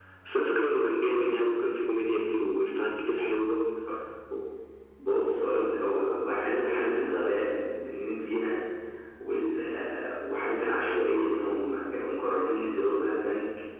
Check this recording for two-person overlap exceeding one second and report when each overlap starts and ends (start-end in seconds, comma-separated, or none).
none